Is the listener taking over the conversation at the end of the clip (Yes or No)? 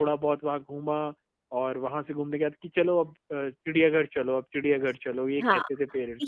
Yes